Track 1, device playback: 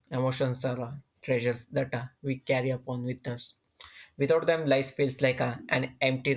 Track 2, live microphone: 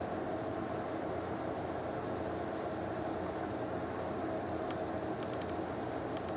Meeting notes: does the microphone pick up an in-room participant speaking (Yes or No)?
No